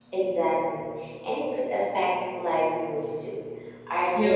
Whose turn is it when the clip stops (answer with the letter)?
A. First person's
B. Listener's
A